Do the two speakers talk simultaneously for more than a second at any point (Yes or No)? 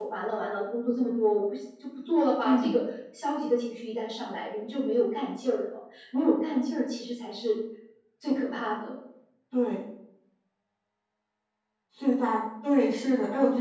No